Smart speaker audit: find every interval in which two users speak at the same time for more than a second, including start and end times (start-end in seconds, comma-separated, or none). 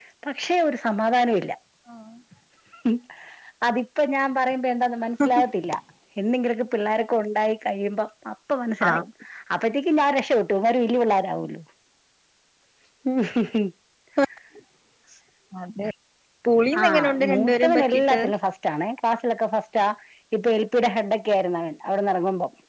16.8-18.2